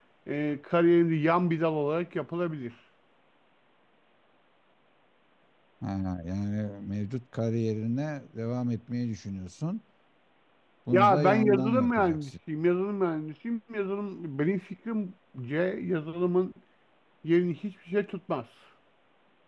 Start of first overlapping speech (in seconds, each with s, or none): 10.9 s